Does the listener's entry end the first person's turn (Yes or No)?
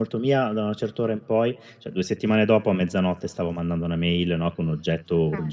No